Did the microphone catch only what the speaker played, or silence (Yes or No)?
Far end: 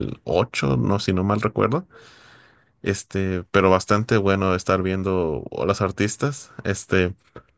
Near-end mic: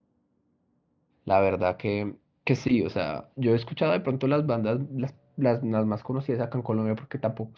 No